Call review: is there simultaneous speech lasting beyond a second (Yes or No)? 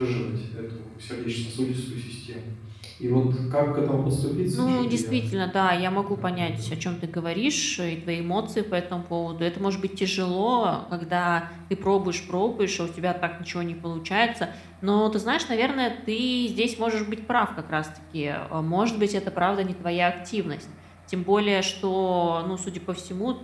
Yes